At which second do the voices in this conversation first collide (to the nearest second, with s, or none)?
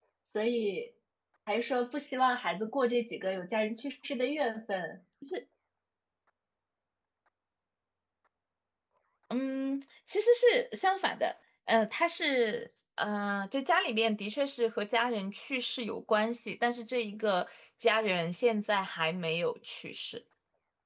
none